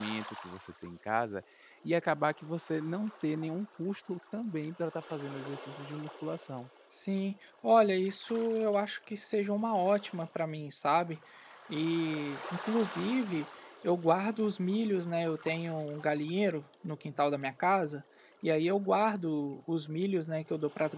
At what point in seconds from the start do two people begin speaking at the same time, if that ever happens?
none

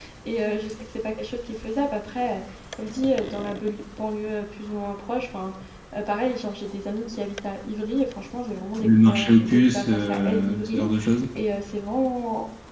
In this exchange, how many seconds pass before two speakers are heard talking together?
9 s

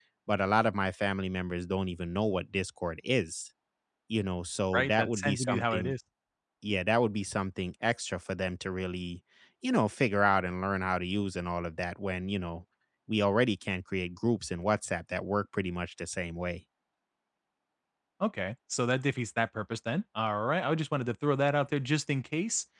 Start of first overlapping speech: 5 s

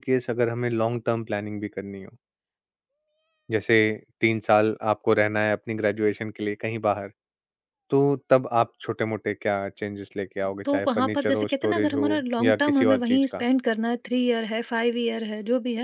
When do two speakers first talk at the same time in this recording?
11 s

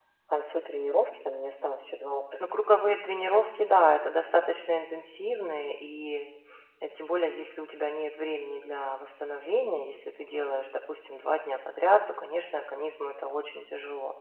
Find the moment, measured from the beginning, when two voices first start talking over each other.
none

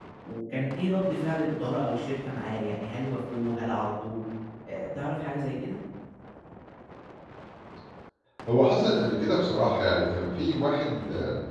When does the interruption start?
none

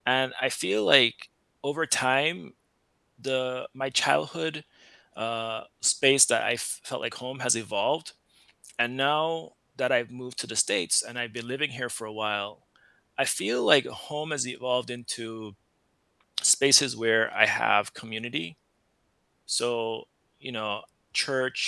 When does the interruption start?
none

